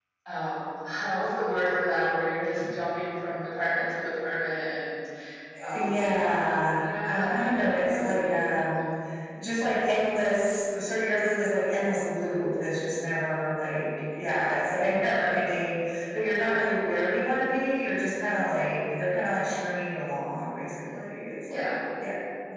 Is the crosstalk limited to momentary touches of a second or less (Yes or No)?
No